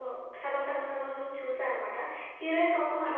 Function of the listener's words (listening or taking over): listening